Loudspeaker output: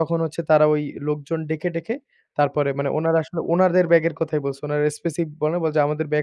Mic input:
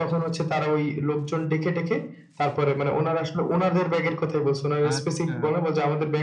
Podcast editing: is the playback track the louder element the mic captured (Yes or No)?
Yes